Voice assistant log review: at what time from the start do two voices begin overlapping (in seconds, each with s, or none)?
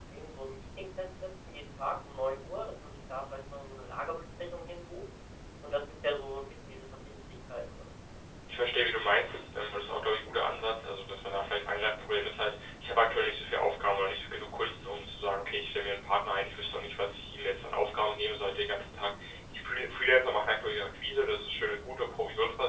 none